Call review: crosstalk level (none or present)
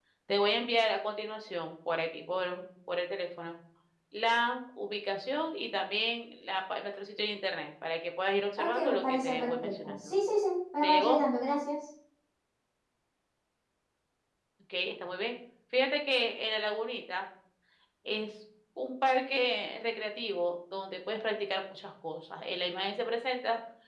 present